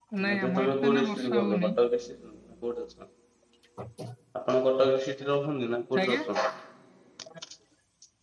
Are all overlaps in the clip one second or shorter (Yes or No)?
No